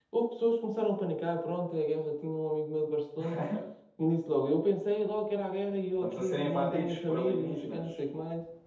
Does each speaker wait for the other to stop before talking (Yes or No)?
No